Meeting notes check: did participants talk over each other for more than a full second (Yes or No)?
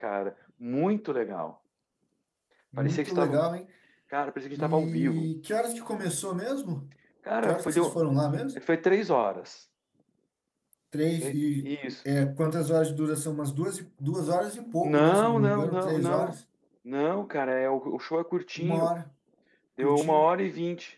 Yes